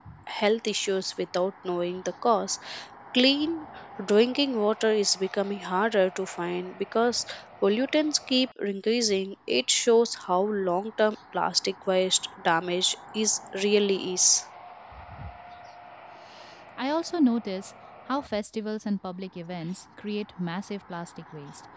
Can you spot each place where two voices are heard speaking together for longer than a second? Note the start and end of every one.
none

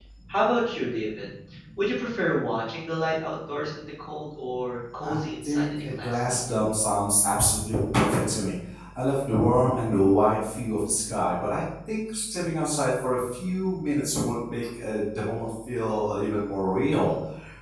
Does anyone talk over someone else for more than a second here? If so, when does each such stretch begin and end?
5.0-6.4

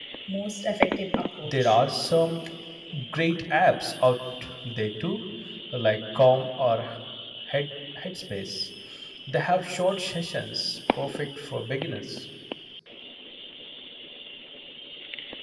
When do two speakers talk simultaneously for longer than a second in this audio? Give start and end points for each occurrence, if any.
none

